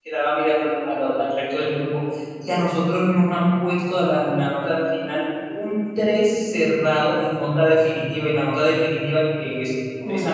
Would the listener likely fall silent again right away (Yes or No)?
Yes